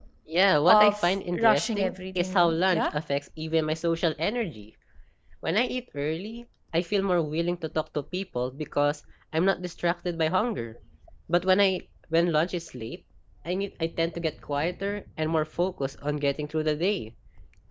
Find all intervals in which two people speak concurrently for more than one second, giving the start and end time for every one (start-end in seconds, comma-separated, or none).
0.6-2.9